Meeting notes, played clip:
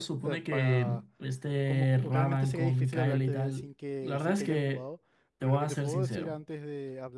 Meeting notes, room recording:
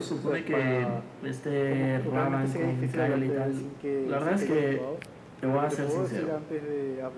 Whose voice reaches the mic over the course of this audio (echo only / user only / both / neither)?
echo only